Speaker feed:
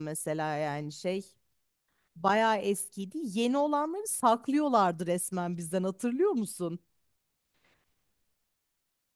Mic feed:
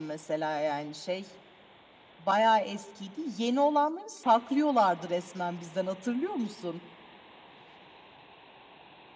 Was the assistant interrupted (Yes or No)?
No